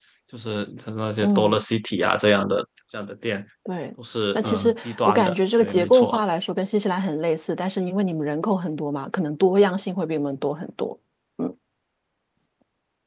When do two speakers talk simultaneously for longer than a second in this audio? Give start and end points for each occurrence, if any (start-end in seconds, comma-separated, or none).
4.3-6.2